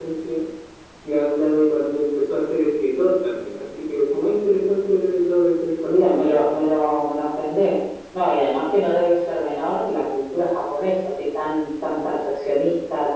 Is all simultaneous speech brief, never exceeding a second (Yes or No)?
Yes